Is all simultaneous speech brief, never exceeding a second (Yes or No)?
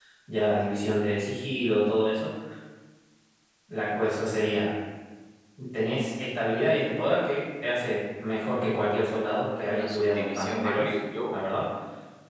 No